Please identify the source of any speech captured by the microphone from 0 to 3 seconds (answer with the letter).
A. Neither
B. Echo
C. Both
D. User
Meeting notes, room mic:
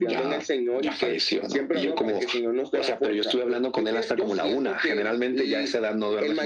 B